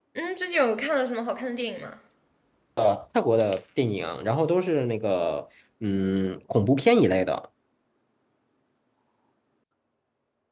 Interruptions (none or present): none